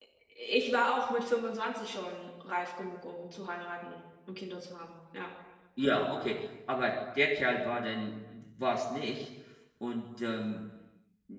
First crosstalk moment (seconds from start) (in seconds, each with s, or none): none